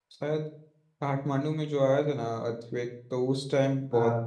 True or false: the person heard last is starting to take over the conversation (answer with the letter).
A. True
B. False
B